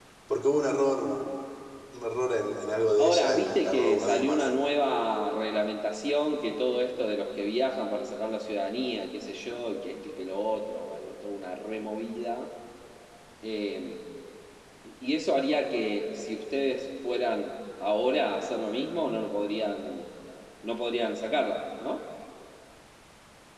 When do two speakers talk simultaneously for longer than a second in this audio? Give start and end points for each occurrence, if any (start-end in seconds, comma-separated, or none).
3.0-4.5